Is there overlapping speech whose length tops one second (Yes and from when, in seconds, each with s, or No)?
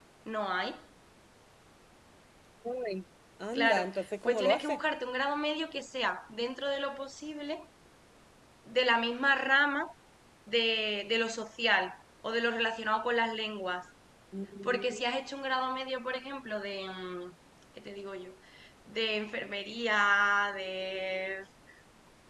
Yes, from 3.5 s